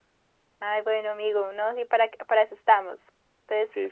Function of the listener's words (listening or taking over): listening